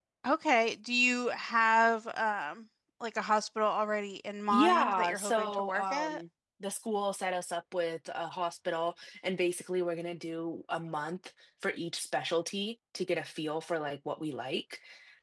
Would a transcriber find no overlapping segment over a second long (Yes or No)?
No